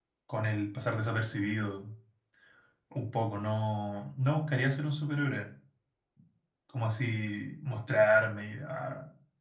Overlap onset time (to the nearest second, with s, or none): none